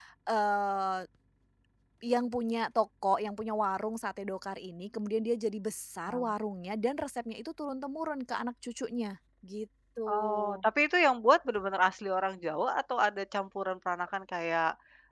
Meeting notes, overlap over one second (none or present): none